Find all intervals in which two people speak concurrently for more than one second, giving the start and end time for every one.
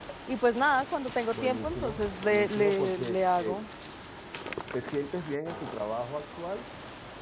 1.3-3.6

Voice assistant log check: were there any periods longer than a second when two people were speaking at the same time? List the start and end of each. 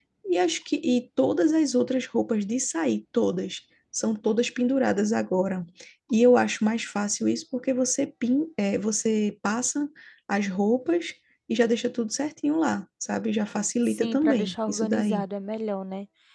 13.8-15.2

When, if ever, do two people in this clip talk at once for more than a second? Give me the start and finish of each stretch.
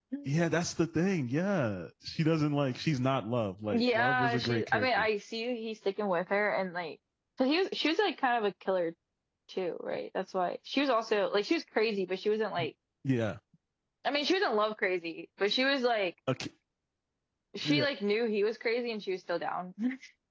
3.7-5.0

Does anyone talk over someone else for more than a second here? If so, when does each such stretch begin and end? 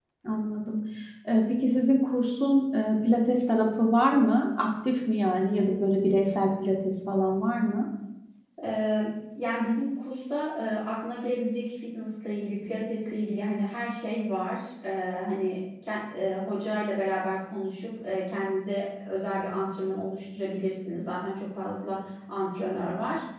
none

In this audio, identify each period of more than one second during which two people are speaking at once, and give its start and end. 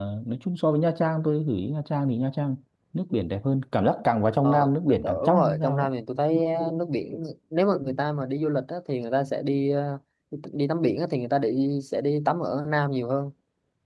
4.4-5.9

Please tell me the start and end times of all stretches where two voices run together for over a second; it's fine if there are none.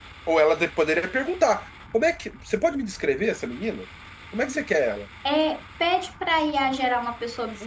none

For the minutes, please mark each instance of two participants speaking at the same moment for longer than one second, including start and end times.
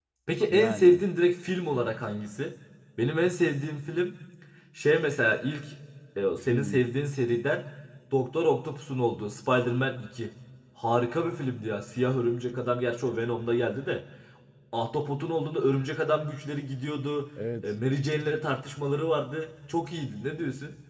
none

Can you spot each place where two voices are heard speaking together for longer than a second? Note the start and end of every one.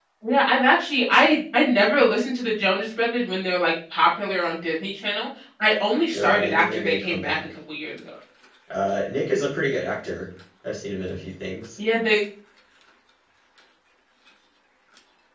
6.1-7.4

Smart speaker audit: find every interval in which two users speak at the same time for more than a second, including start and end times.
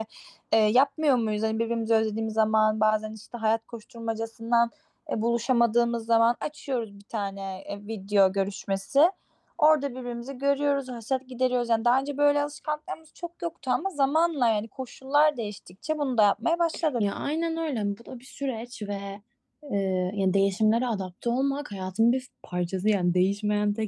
none

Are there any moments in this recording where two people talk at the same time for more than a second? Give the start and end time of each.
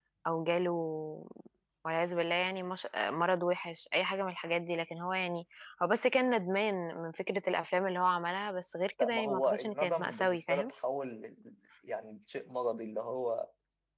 9.0-10.7

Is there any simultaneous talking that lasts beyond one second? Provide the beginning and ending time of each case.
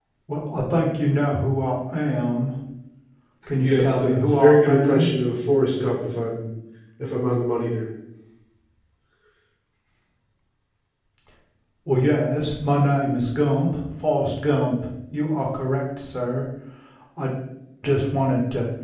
3.6-5.1

